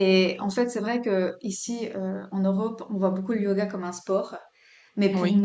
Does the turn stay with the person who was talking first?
Yes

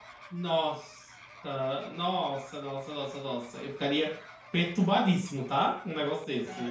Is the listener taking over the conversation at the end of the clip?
Yes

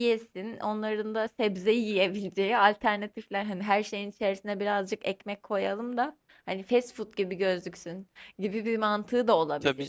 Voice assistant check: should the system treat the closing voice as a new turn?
Yes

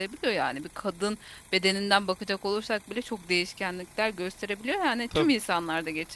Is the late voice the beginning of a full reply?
No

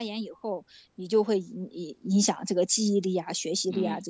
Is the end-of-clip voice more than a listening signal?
Yes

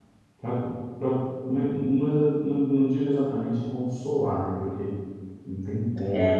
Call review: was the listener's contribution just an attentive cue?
Yes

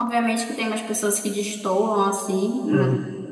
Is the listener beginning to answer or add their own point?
No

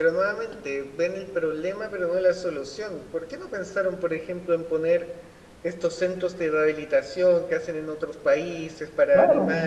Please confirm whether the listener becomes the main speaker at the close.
No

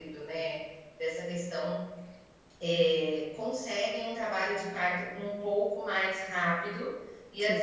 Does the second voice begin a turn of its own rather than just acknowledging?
No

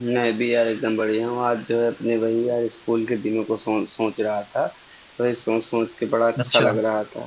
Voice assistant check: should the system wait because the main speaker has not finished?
Yes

